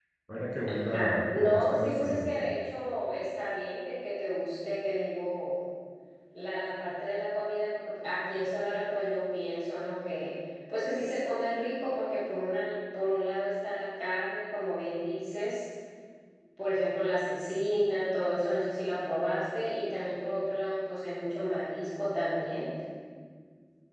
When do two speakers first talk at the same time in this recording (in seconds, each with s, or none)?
0.9 s